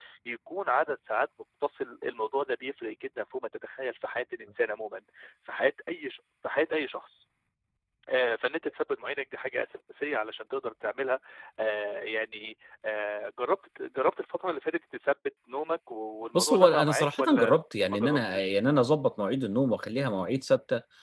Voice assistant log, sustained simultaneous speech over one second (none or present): present